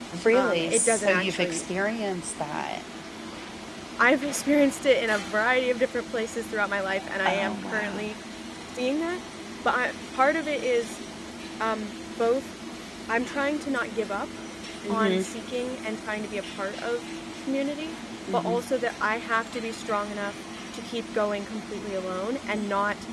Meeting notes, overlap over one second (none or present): present